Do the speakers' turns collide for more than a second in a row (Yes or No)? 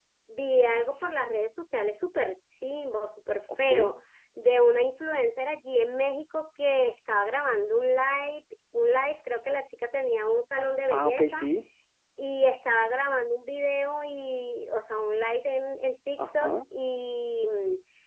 No